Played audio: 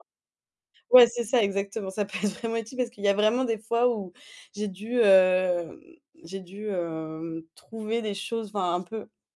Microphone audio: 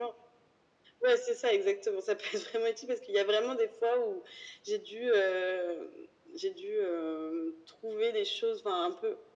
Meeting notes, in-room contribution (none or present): none